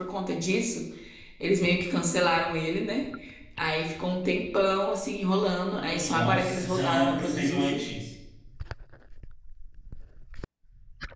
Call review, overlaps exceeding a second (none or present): present